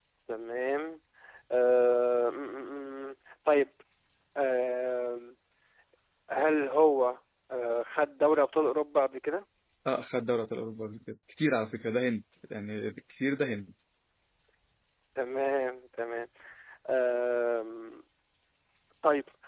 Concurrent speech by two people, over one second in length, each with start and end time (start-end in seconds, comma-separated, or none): none